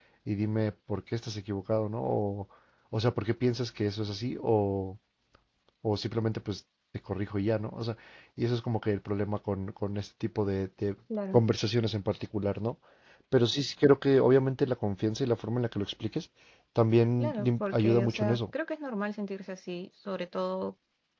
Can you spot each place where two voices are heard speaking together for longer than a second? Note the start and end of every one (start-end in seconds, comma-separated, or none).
17.2-18.4